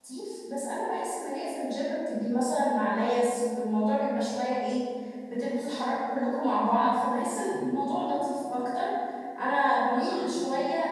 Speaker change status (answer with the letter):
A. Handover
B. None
B